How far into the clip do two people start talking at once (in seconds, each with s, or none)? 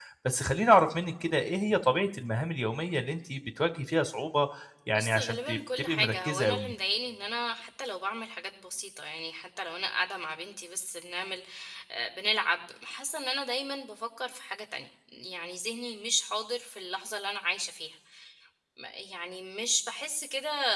4.9 s